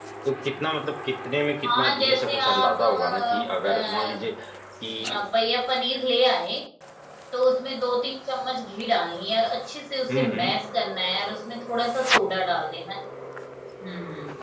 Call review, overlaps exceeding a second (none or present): present